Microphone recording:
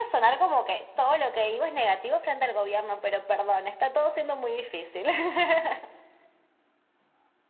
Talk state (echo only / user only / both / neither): echo only